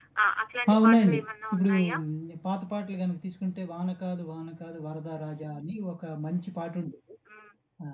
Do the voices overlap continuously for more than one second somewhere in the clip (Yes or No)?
No